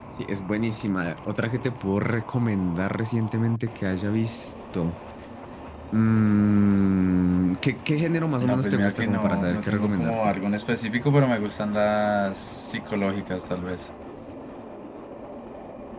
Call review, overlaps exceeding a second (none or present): present